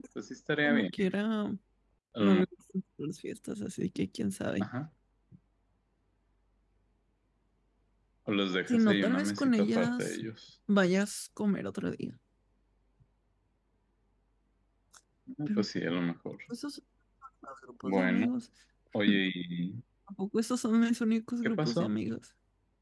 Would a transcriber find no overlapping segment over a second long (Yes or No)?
No